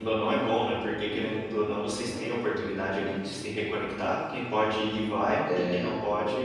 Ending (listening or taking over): listening